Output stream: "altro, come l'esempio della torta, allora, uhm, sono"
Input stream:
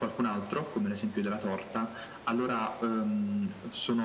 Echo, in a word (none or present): present